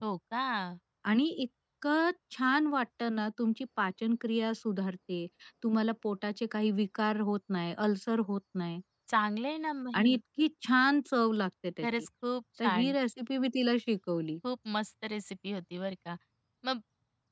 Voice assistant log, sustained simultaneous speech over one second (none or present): none